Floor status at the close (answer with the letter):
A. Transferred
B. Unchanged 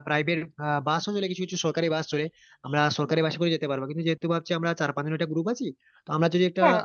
B